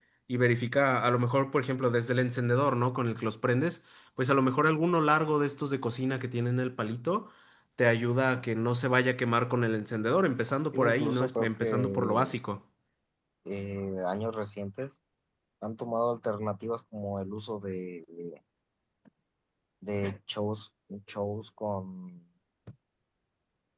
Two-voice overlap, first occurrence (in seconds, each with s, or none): 10.7 s